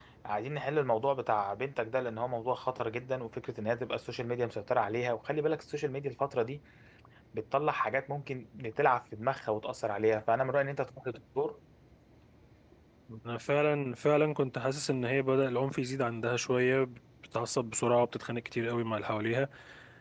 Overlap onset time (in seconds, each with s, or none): none